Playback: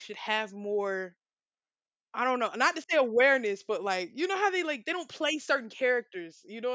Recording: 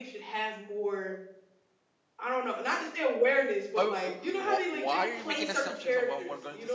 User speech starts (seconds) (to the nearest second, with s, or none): 4 s